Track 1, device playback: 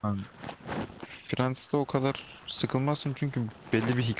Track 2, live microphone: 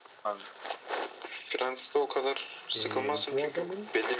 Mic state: both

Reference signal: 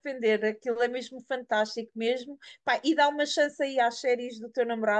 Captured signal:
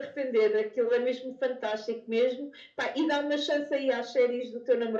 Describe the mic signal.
echo only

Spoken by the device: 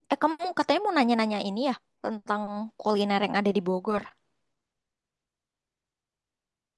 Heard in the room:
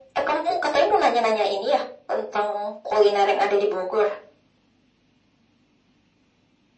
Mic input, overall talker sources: echo only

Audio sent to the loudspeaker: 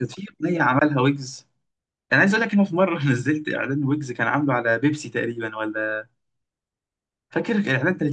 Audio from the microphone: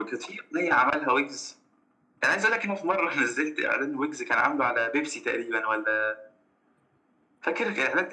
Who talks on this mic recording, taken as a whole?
echo only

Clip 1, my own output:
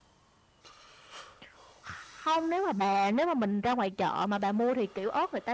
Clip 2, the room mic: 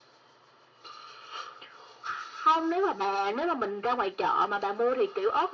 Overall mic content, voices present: echo only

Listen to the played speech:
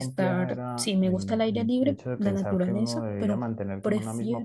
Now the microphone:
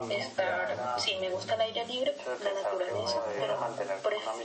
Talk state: both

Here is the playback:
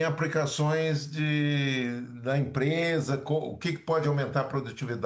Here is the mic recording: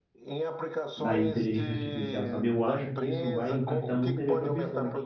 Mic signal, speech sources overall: both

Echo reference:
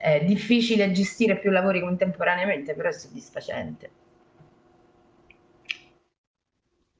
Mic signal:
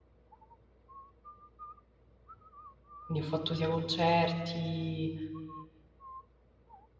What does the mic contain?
user only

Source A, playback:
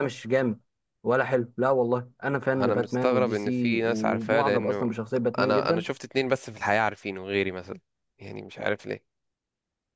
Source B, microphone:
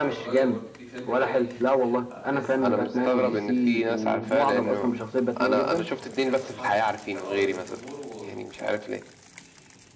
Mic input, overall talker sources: both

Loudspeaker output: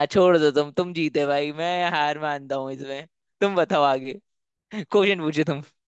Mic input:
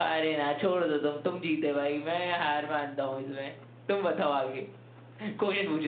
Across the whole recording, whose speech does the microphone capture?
echo only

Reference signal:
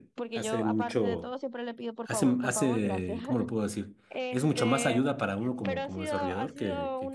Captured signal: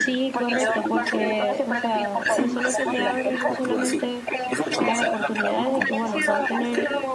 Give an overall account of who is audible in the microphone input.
both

